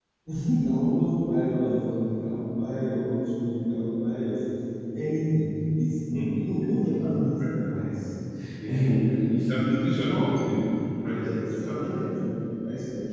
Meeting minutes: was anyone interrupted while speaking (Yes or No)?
Yes